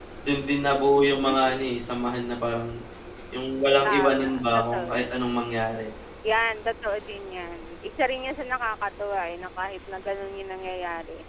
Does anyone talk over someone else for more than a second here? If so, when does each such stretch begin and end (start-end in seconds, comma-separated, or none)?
3.8-5.2